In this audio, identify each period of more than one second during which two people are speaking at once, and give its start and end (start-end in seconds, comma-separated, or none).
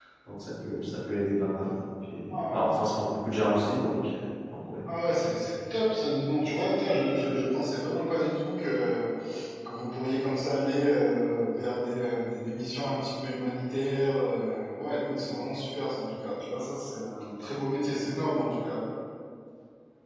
none